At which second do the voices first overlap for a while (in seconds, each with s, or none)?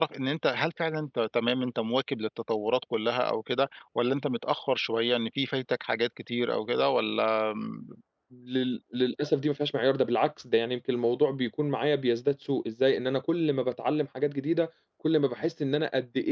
none